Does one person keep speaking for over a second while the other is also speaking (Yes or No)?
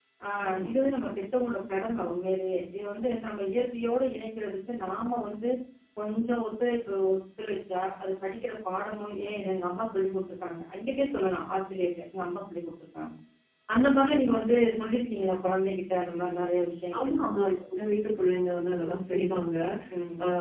No